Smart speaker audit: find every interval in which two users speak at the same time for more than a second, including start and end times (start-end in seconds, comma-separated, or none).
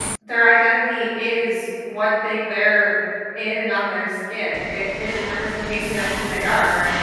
none